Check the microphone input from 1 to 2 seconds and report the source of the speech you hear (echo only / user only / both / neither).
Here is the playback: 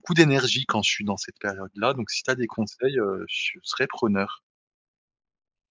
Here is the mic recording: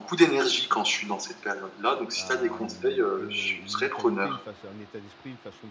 echo only